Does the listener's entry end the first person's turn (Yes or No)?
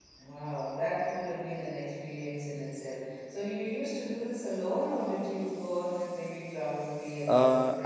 Yes